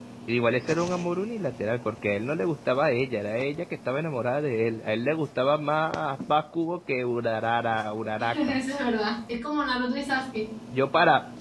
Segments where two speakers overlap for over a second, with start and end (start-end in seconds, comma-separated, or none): none